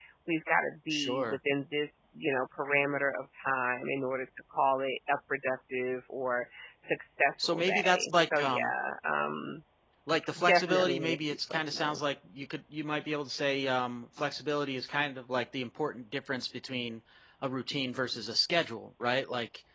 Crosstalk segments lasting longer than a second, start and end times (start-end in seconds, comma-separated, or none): 7.4-8.7, 10.4-12.0